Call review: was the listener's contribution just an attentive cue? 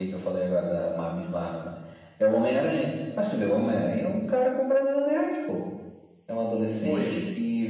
Yes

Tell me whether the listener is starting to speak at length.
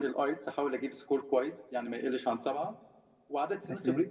No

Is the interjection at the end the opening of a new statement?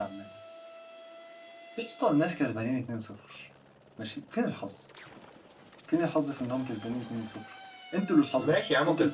Yes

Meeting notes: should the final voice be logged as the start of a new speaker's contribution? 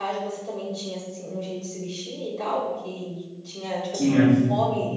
No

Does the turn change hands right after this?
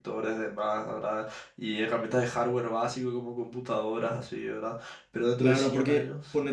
Yes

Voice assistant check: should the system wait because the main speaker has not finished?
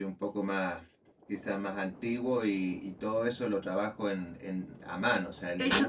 No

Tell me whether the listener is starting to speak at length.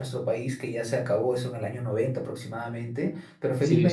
Yes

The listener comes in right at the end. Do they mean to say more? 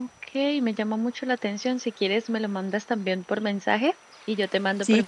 No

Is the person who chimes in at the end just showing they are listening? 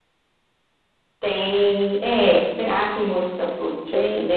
Yes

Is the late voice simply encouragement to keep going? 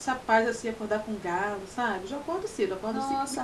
Yes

